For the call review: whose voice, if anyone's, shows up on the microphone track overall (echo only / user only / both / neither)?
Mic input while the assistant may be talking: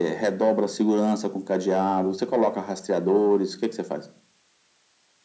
echo only